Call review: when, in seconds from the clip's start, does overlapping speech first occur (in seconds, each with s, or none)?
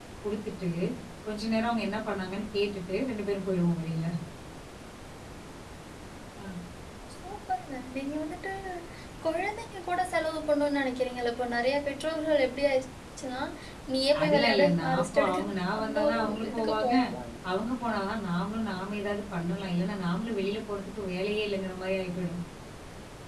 14.2 s